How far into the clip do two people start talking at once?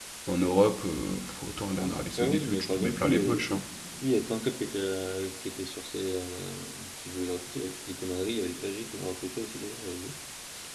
1.8 s

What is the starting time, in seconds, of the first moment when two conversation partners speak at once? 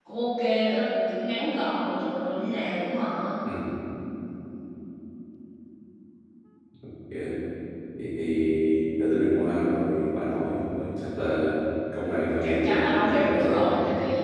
12.4 s

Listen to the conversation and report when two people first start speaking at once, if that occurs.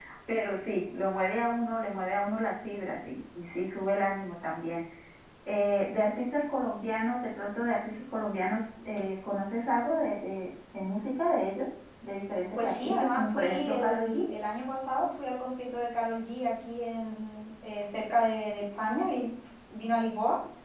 12.6 s

